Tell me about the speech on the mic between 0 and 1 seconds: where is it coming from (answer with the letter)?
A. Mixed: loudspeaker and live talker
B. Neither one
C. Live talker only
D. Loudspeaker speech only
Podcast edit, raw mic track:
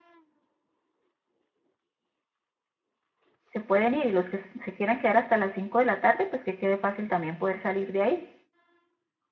B